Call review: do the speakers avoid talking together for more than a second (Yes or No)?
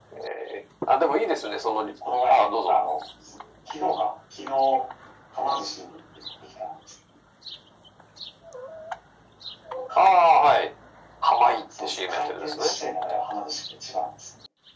No